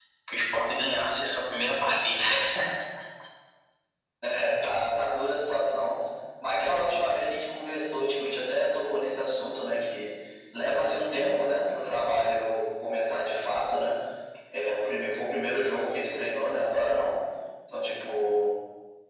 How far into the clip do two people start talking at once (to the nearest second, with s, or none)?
none